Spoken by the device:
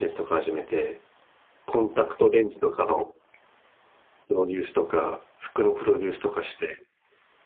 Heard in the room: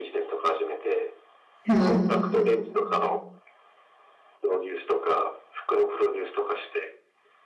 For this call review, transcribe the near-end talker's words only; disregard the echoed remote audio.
うん。

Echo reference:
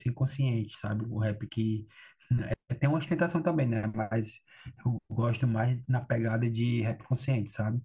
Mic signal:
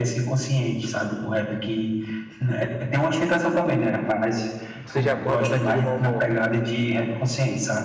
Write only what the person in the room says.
Você já acorda naquele mau humor.

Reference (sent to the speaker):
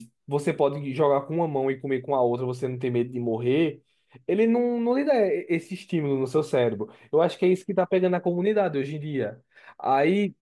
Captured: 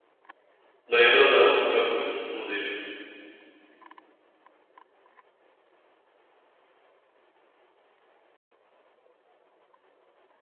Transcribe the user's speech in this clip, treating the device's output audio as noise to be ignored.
Lembra, eu usava muito o Orkut, inclusive.

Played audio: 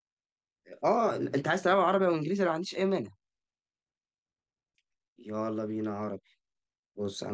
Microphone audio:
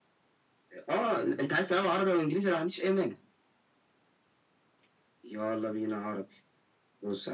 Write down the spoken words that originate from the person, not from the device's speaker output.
none

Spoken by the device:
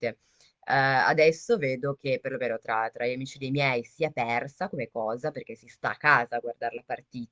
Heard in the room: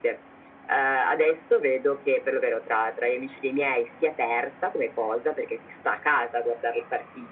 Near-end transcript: none

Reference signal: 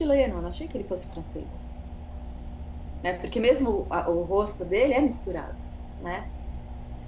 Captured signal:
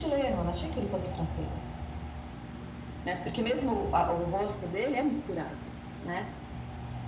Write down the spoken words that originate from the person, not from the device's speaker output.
none

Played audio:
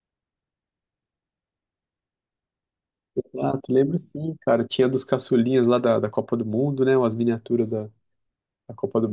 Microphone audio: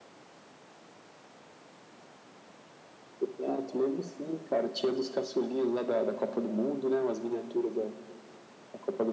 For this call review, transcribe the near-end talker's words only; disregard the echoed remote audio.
none

